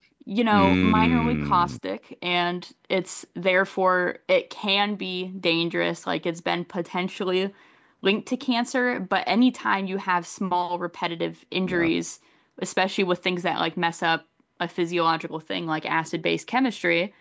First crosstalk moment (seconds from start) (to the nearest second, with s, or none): 1 s